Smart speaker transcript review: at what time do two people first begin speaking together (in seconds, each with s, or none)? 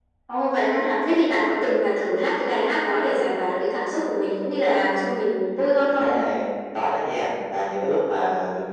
none